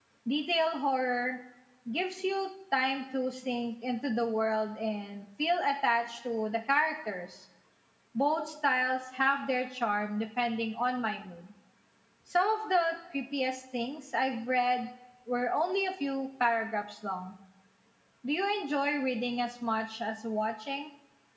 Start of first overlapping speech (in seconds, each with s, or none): none